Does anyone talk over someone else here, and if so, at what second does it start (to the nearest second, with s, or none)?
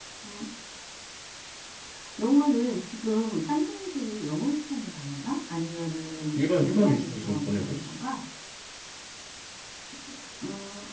6 s